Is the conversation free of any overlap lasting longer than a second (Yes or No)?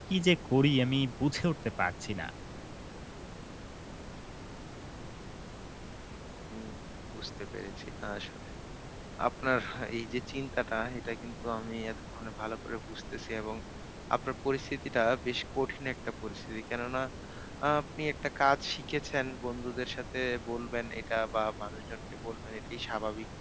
Yes